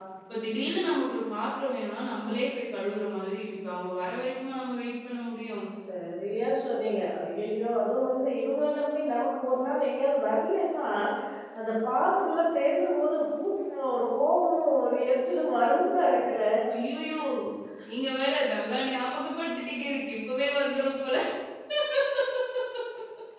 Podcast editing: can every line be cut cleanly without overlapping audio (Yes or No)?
Yes